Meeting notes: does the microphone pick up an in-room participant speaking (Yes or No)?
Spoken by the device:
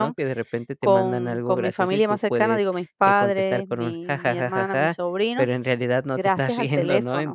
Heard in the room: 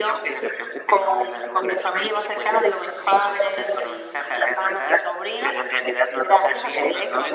No